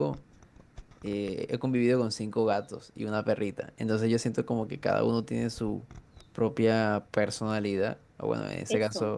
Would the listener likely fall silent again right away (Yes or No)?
Yes